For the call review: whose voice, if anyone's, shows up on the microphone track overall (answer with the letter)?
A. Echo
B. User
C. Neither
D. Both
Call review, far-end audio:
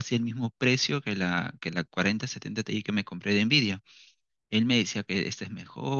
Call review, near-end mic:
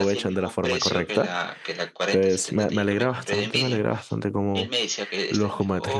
D